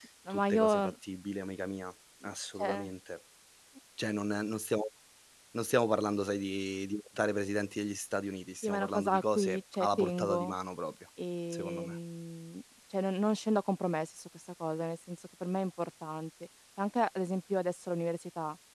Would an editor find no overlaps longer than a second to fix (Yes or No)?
No